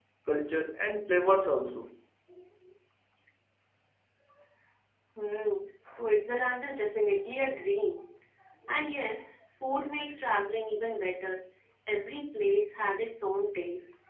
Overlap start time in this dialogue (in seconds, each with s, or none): none